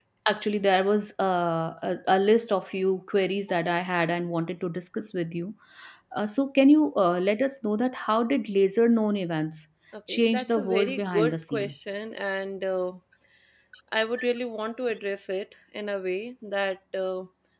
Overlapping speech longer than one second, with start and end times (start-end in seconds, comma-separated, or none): 10.1-11.7